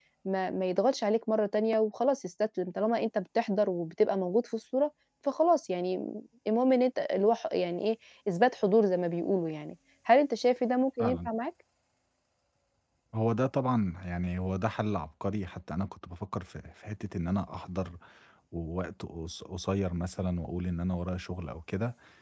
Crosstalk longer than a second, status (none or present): none